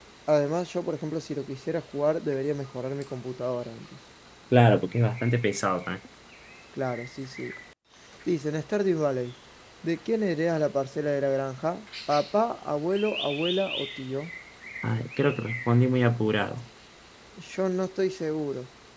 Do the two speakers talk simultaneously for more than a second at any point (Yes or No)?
No